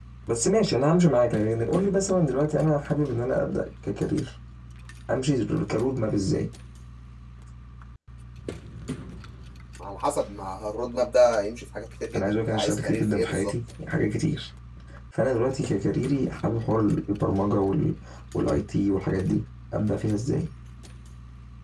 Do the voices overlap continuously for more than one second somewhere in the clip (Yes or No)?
Yes